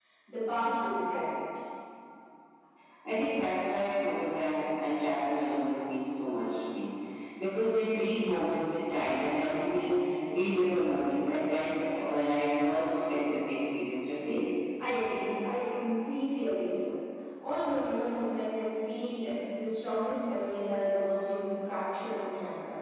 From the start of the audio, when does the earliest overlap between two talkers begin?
none

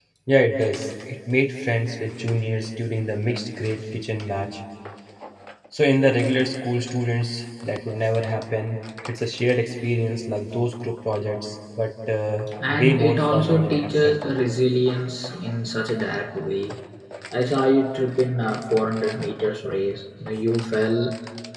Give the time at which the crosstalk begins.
13 s

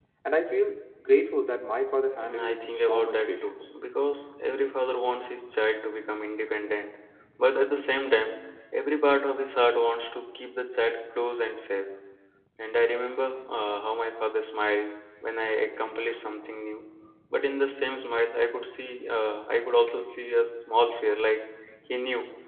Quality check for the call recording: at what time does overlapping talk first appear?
2 s

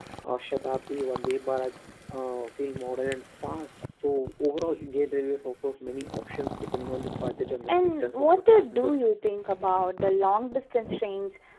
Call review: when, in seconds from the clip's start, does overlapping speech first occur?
8 s

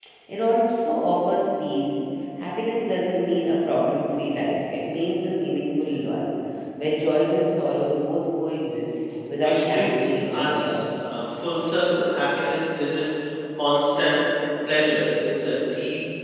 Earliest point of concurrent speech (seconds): 9 s

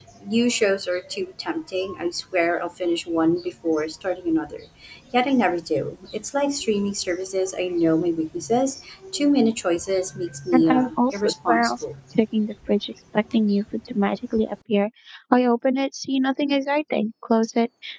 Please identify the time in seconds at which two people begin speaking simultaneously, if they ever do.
11 s

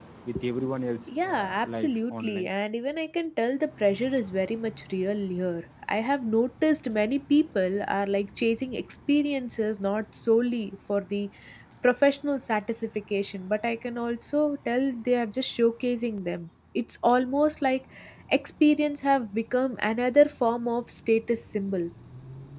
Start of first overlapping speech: 1 s

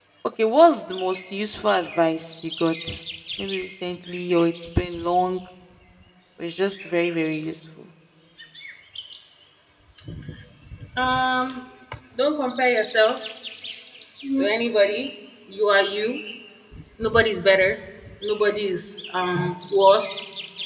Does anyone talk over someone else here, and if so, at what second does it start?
none

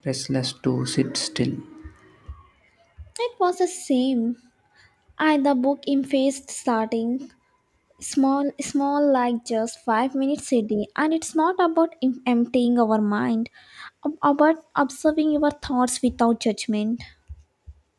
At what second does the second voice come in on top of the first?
none

